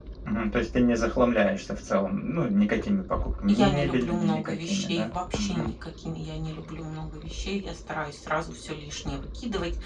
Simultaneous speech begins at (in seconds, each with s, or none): 3.5 s